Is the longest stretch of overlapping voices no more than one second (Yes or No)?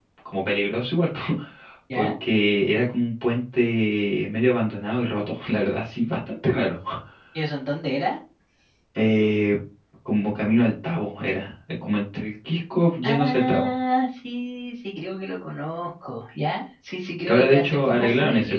No